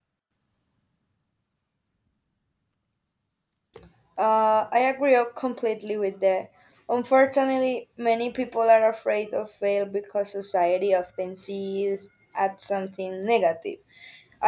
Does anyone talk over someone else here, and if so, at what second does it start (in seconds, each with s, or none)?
none